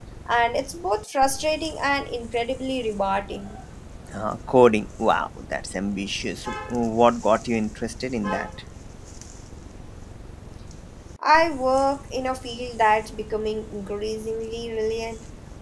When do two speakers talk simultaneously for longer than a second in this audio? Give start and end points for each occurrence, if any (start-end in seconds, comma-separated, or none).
none